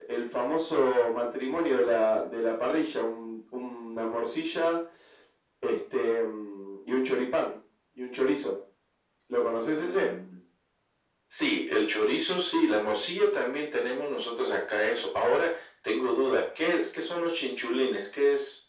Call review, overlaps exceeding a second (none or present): none